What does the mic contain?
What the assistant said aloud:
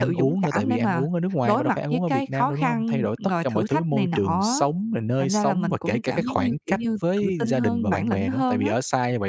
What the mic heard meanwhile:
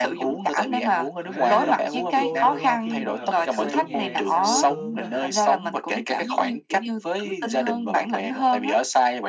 both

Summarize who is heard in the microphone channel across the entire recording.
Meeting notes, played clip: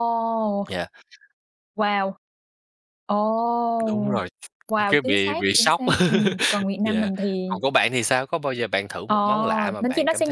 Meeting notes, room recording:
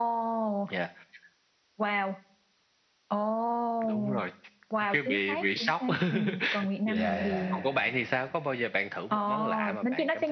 both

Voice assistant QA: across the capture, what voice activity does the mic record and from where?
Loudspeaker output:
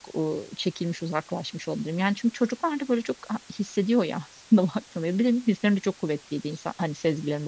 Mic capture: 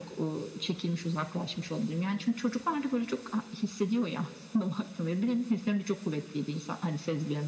echo only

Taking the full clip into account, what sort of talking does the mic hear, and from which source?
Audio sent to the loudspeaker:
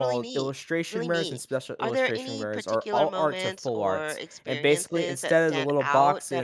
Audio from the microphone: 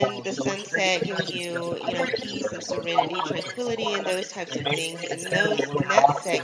both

